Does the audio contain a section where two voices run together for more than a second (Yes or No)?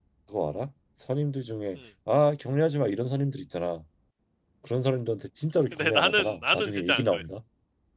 Yes